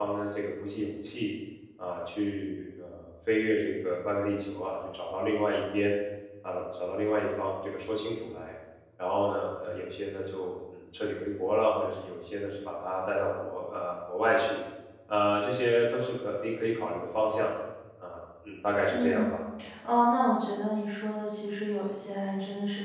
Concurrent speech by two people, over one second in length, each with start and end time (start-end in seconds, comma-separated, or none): none